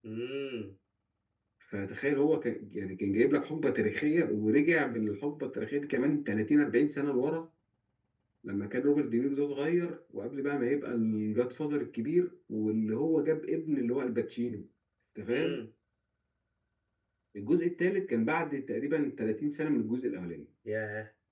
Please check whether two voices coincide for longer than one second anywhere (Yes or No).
No